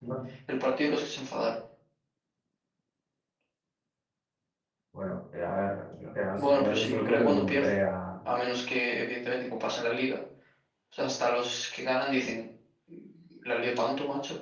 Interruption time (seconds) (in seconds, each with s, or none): 6.4 s